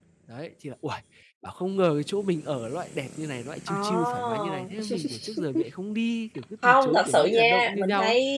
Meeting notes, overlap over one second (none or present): present